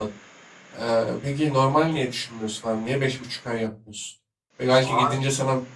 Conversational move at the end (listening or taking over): listening